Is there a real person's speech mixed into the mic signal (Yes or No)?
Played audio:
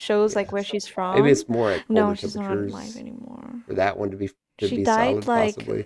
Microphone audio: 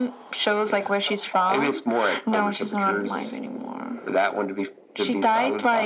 No